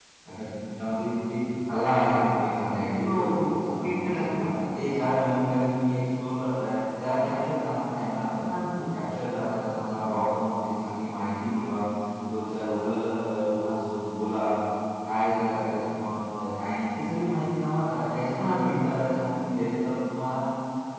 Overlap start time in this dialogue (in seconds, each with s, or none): 3.0 s